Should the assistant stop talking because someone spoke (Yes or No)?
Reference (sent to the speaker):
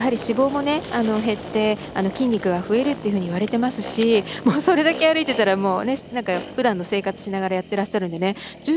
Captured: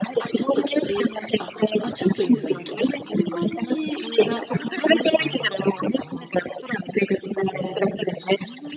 Yes